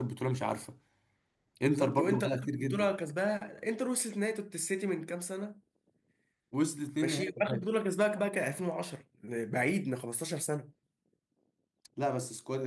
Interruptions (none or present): present